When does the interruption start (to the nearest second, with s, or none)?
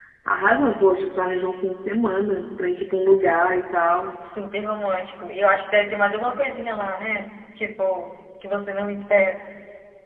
none